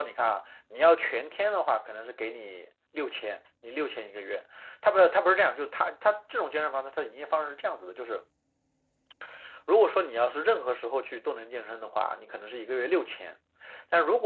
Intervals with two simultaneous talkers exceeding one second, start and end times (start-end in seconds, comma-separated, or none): none